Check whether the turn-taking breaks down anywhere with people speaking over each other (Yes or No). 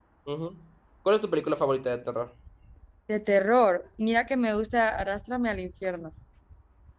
No